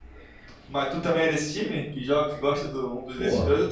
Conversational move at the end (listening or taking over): taking over